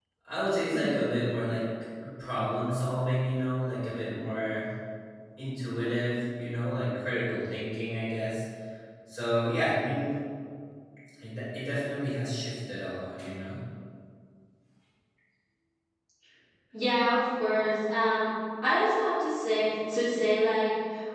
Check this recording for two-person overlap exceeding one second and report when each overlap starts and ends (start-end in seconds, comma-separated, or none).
none